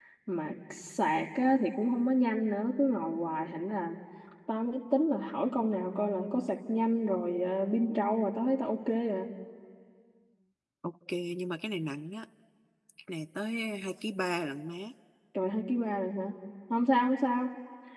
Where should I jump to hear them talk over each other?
none

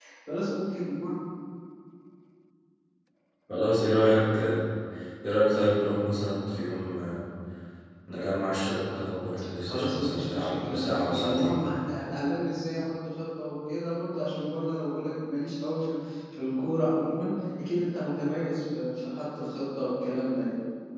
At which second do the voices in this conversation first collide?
9.7 s

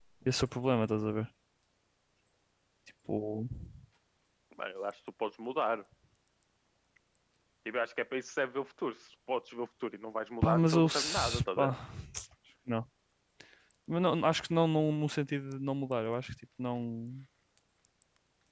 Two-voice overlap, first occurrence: 10.4 s

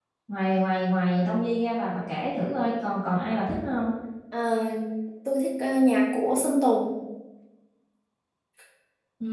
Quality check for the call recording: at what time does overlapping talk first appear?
none

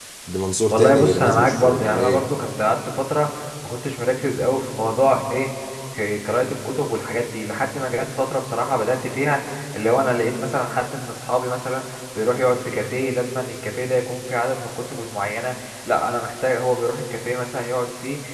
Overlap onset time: 0.7 s

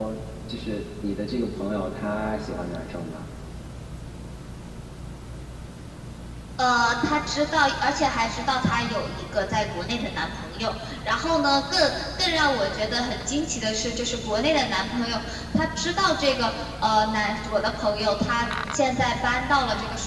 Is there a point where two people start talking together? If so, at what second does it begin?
none

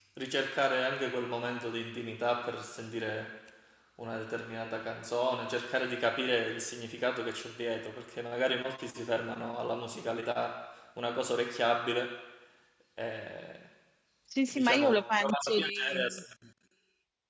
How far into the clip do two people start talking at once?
14.5 s

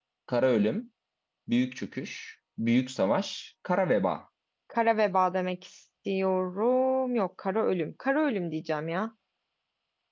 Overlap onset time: none

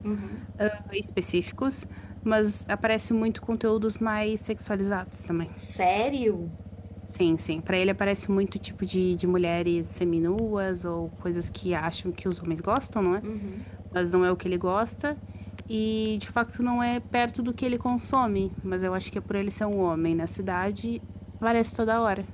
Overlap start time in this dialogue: none

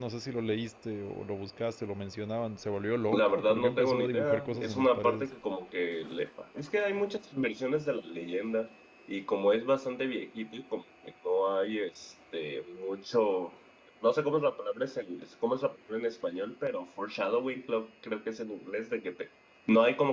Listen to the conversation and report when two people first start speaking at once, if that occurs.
3.1 s

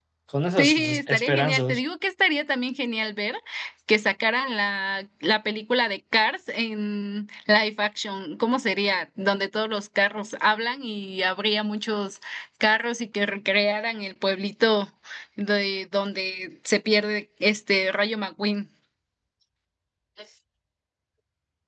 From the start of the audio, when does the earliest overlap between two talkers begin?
0.6 s

